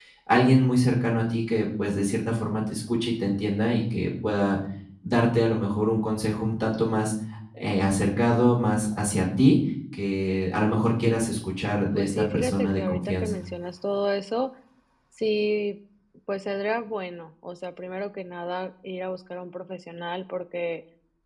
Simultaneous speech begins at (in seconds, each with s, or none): 11.9 s